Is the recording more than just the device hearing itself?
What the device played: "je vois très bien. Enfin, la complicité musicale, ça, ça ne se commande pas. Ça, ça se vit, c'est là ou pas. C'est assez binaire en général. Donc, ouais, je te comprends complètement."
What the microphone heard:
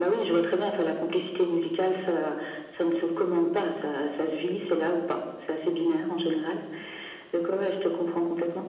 No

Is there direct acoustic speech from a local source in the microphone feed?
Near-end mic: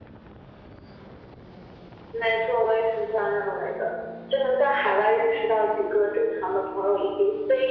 No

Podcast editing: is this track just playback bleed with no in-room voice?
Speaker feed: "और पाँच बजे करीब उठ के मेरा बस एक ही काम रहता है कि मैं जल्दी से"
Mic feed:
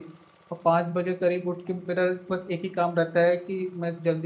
Yes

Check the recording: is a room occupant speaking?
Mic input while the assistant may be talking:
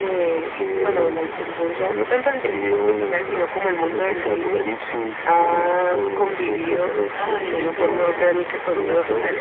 Yes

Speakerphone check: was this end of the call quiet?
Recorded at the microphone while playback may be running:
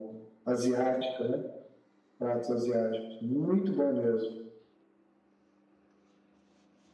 Yes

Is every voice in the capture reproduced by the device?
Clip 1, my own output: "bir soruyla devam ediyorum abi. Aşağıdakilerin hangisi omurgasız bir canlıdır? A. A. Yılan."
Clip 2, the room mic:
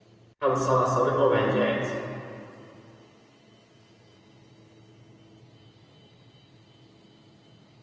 No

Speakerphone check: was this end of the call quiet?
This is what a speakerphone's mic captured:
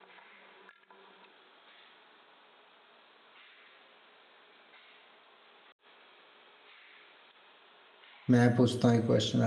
No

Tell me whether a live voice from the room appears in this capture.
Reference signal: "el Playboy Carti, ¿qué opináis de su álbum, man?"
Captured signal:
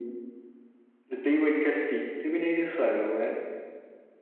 No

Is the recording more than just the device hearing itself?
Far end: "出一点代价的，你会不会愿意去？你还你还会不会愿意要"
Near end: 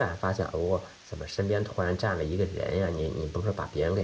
Yes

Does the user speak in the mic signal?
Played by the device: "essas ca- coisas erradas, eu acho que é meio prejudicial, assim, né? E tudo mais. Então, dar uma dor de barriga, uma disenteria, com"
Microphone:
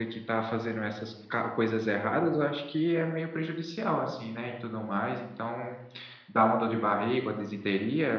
No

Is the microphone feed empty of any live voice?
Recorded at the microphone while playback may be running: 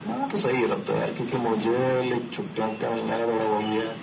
Yes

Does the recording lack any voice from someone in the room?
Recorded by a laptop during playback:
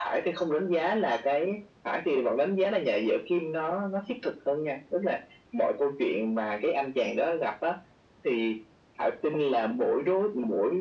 Yes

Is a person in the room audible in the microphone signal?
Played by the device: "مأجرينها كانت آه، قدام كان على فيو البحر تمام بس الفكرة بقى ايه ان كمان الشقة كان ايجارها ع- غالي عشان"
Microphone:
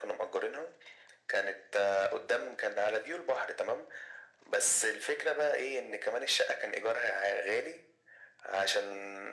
No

